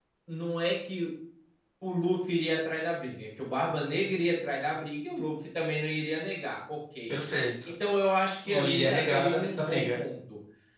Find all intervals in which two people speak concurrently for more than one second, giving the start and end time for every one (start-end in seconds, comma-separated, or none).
8.4-10.0